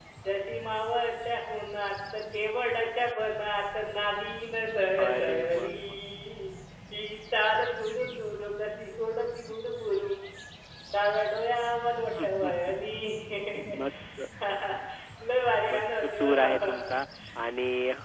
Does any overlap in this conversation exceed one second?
Yes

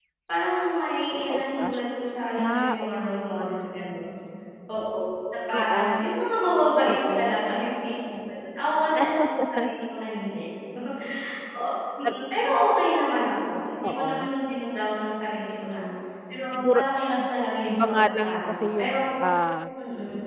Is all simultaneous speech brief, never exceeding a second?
No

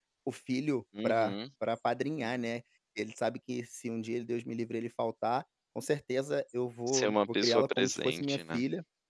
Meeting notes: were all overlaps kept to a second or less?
No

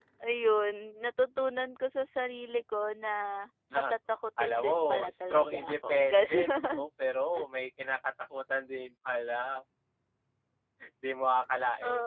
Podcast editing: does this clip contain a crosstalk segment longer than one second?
Yes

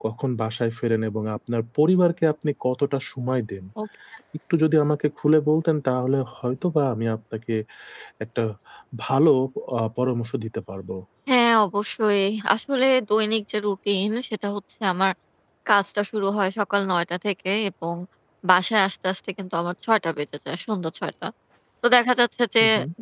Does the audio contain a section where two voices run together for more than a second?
No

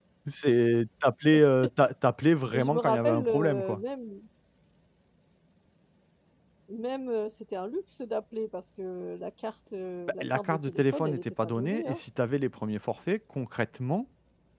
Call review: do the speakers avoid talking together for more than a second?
No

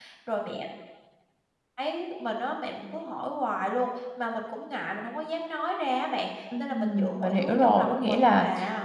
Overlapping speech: Yes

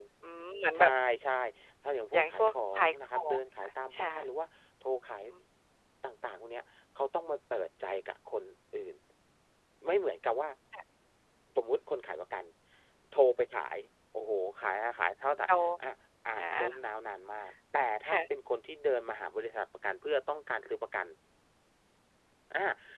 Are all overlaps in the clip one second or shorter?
No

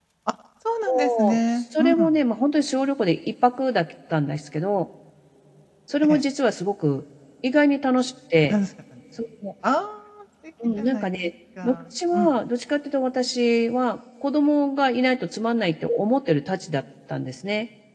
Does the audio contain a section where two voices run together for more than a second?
Yes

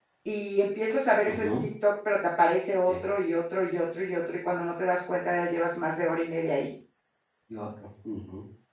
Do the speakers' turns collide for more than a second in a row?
No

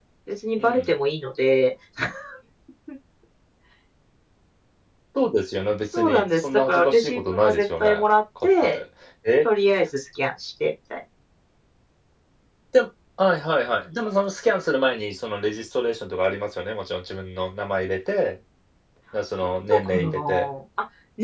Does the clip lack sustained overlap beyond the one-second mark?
No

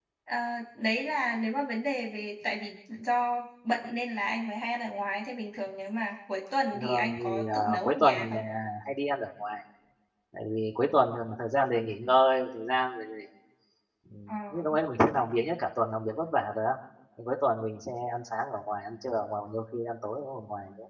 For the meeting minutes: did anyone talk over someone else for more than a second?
Yes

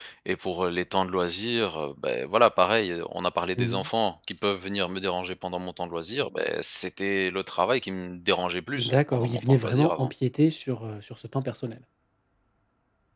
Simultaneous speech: Yes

